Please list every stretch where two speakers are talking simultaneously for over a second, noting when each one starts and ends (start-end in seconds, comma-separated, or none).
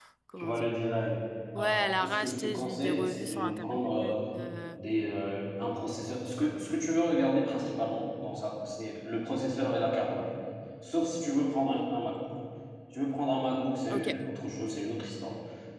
1.6-4.1